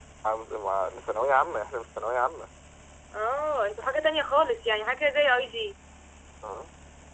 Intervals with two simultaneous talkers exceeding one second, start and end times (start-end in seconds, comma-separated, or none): none